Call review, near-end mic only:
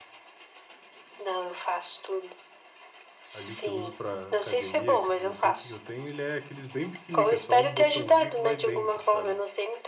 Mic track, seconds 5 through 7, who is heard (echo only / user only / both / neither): both